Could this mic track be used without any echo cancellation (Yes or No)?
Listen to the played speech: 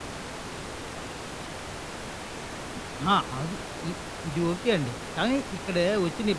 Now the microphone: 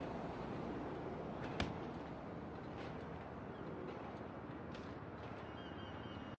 Yes